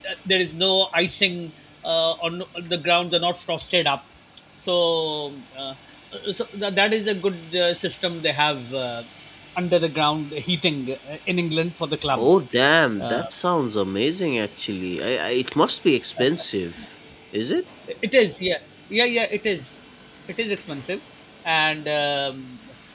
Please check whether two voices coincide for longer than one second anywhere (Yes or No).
No